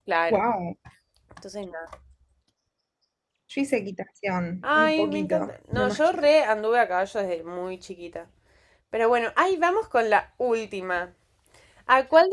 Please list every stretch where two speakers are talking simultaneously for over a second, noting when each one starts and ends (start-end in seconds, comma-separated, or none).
4.8-6.2